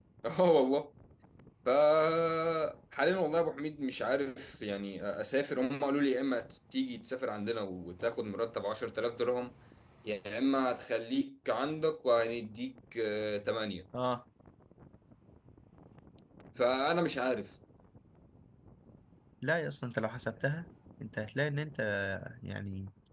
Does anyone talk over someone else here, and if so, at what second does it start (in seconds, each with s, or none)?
none